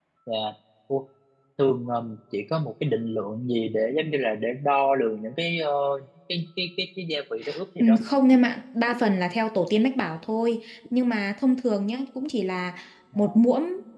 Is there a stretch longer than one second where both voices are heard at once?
No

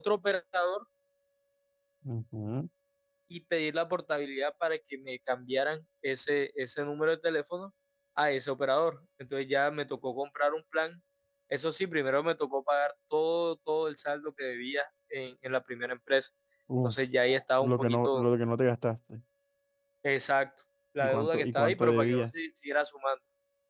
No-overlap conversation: No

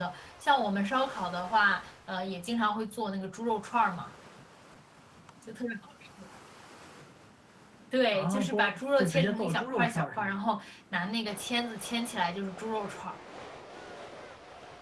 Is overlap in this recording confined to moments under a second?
No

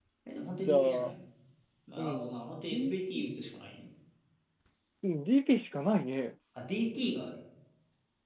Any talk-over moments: Yes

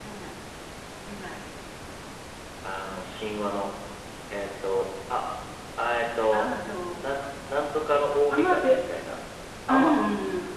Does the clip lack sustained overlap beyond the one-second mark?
Yes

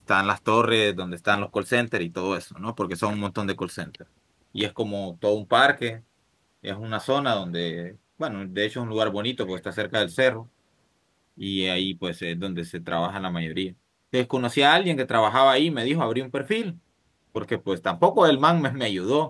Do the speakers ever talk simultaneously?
No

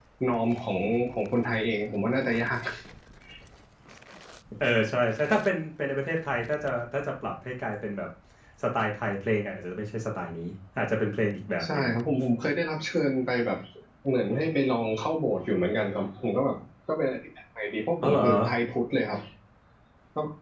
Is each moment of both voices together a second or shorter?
Yes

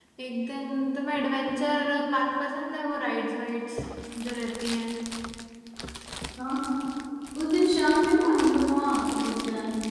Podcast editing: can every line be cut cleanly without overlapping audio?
Yes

